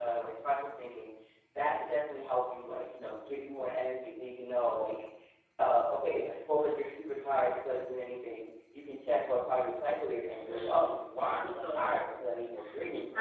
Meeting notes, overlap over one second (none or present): present